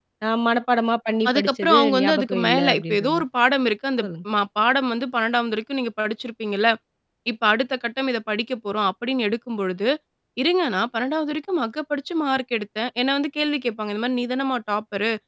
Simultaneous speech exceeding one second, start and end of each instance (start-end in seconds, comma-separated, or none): 1.3-3.2